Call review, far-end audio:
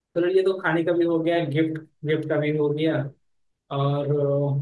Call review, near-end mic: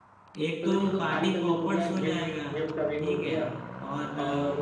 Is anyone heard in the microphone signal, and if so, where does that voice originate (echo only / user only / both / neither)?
both